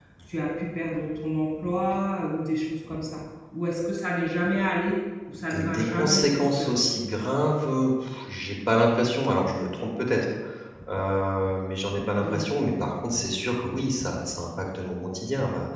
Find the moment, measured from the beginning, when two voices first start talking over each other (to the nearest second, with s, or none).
5 s